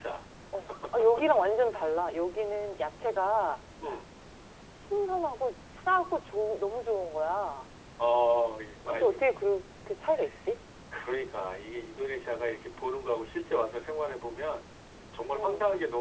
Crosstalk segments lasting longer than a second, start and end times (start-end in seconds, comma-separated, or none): none